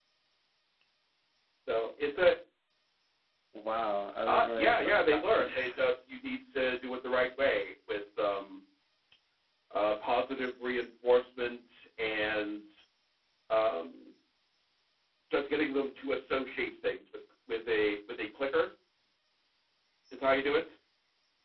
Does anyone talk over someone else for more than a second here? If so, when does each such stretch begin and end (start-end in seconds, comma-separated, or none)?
4.3-5.9